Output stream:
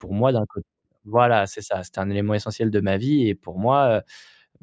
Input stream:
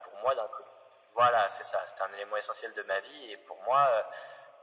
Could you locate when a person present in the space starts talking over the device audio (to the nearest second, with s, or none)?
none